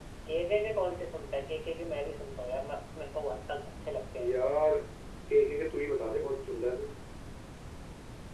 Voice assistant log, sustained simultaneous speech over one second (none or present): none